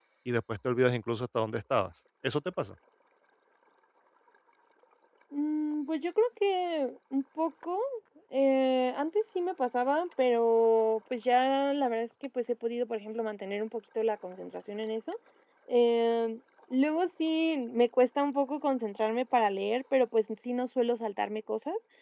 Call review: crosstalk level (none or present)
none